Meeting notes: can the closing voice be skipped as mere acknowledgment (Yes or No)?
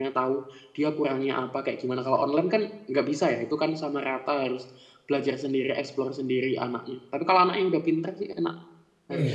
No